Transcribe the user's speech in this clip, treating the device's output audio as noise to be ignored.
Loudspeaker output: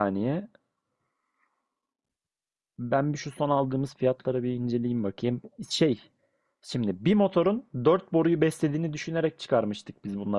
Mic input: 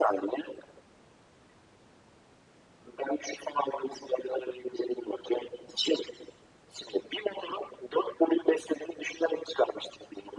none

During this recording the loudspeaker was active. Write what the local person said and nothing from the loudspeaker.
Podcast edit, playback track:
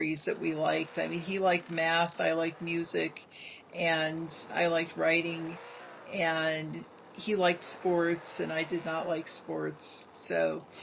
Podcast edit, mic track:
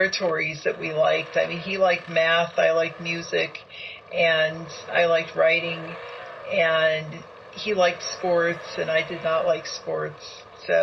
none

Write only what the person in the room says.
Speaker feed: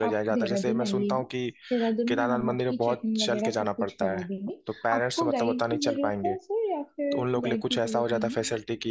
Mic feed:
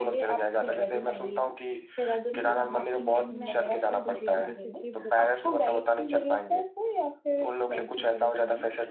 ठीक है आप हम मैं आपको धीरे धीरे करके बताती हूँ

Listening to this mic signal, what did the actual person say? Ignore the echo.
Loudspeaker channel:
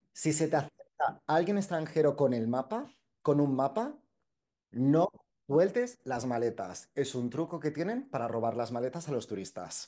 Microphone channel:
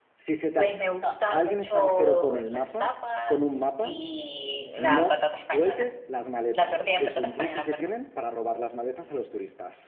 pues me gusta mucho las tapas y la patata española. La tortilla de patata española, perdón.

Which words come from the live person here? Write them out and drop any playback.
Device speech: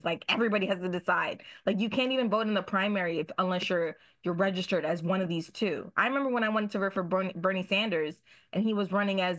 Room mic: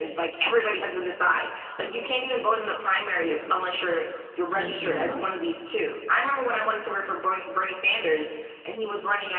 I liked him a lot.

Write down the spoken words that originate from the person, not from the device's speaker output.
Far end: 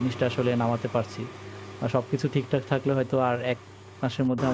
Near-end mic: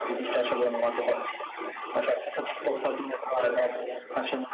none

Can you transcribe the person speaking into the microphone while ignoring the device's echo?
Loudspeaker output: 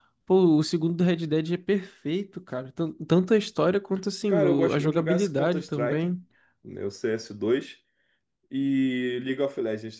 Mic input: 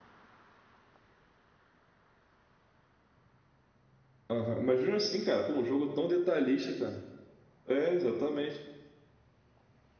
Aham. Imagina assim, cara, pô, um jogo tão detalhista, cara. É, exatamente.

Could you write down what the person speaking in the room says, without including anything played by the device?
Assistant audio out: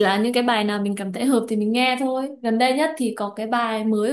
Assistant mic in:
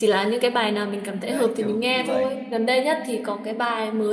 đấy kiểu như vậy.

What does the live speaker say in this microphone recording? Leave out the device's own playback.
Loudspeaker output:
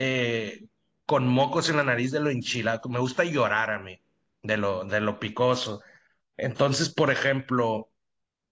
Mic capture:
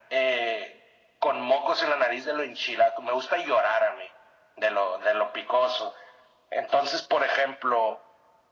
none

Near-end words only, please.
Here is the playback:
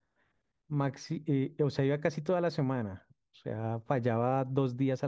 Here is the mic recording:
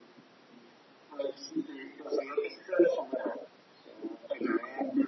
none

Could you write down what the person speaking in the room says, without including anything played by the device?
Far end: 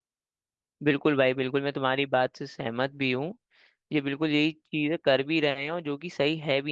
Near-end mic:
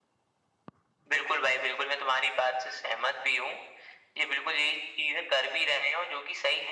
none

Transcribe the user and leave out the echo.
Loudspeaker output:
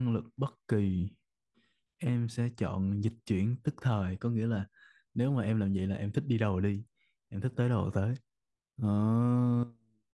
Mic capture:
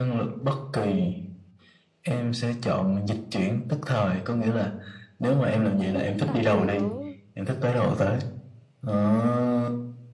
khu cũng toàn người có

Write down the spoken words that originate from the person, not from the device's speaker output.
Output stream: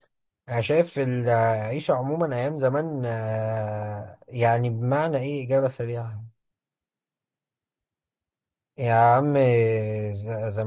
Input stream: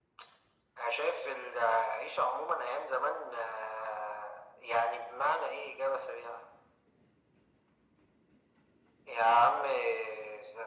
none

